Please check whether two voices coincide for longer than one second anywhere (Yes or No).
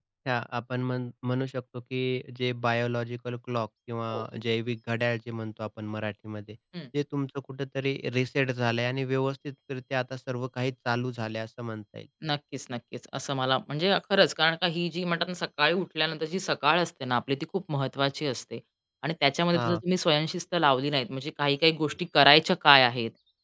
No